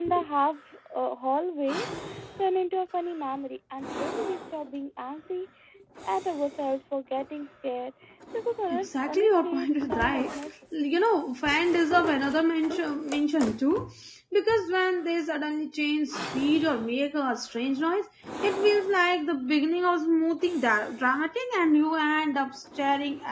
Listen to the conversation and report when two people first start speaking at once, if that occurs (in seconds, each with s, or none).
8.7 s